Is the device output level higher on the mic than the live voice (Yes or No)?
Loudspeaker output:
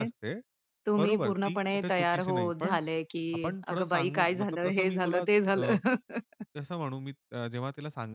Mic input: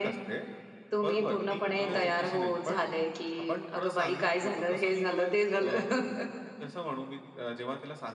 Yes